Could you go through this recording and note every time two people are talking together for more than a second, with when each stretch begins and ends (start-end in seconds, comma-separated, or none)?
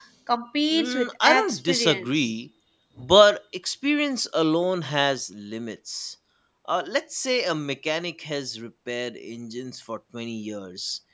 0.7-2.3